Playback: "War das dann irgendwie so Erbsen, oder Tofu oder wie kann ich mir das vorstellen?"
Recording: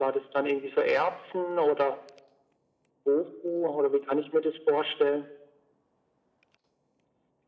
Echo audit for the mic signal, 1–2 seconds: echo only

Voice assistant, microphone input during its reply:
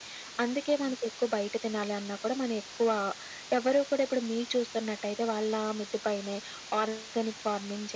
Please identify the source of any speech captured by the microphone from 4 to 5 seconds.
echo only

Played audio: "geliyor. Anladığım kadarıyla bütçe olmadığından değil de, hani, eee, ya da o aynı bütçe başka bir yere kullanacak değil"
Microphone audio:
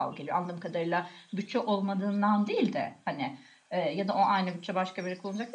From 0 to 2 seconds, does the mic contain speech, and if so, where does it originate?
echo only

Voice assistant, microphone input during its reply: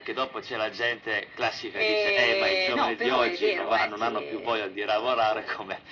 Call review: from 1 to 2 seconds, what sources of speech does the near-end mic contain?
echo only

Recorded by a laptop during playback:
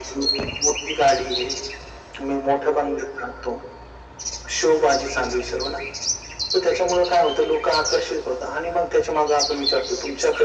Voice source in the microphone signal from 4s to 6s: echo only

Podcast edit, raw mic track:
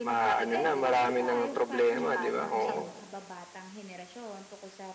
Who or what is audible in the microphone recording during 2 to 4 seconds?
both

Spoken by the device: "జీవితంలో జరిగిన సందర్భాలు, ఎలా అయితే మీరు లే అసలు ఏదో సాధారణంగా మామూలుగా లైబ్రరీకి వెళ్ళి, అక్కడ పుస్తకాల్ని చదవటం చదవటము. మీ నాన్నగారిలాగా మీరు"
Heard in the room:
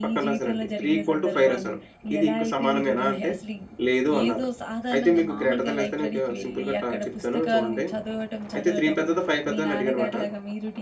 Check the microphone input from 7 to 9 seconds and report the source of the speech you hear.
both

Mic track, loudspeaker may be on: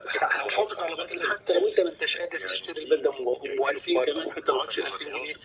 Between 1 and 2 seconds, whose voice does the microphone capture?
echo only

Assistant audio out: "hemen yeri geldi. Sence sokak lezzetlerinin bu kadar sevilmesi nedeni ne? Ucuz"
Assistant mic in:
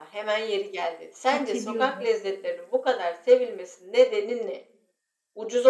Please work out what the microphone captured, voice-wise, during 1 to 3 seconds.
both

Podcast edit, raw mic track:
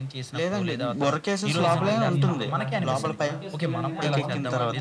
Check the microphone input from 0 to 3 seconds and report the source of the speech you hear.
both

